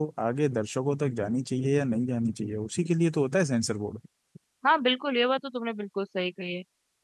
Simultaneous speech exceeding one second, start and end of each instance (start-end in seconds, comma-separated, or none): none